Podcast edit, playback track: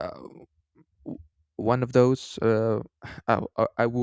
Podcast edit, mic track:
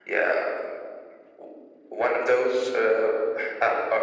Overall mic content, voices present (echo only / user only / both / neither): echo only